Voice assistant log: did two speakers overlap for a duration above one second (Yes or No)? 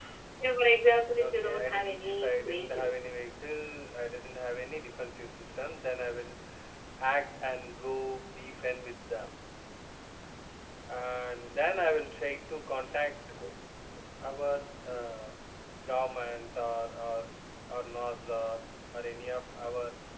Yes